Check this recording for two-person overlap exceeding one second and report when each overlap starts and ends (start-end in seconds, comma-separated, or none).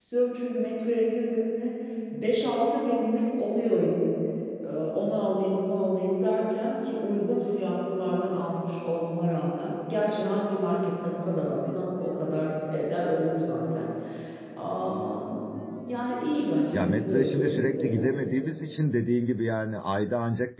16.7-18.1